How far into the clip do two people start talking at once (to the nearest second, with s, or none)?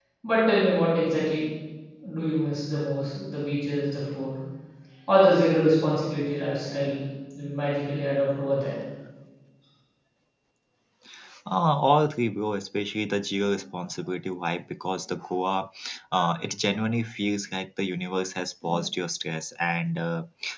none